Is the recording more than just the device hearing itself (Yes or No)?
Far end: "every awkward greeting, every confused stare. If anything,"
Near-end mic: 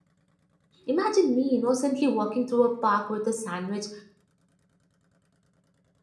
Yes